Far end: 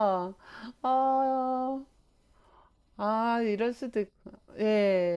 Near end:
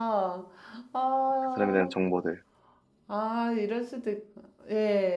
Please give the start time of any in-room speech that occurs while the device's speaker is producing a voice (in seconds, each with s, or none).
1.4 s